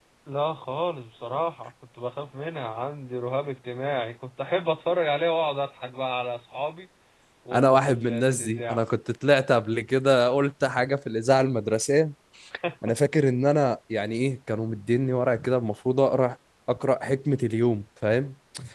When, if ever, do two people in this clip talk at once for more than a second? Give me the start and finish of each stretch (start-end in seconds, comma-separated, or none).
7.5-8.8